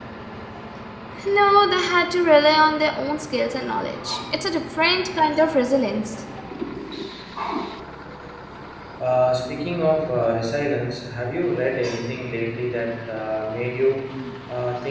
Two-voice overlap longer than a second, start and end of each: none

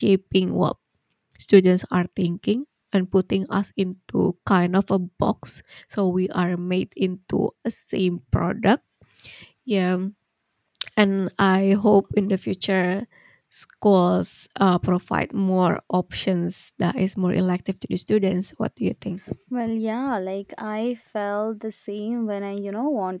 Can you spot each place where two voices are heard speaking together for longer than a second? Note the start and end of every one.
none

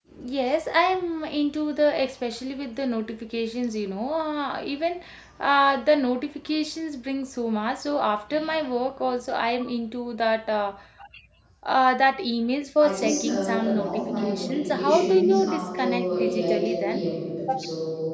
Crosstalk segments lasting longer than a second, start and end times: 12.8-17.0

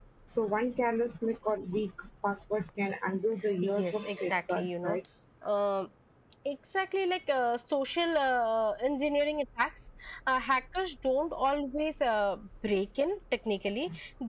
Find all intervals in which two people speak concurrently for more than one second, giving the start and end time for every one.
3.6-5.0

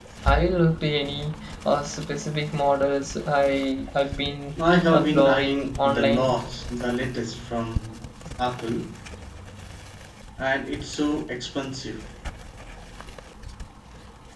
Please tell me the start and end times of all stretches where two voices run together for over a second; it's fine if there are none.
4.7-6.4

